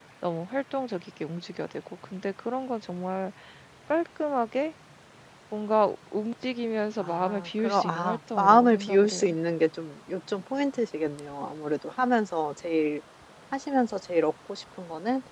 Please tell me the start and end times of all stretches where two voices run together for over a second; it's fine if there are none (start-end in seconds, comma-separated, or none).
7.0-9.2